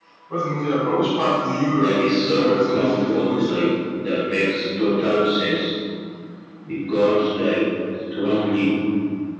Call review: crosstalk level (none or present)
present